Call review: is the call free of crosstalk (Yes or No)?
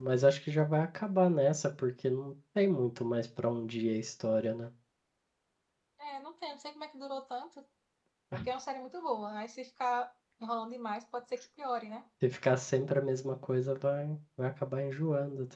Yes